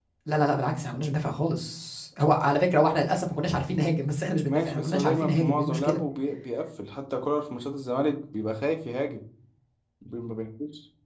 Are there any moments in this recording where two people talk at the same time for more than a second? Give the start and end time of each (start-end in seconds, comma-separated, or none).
4.5-6.0